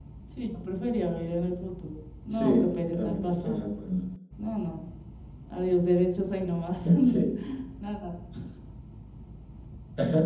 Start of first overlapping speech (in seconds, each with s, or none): 2.3 s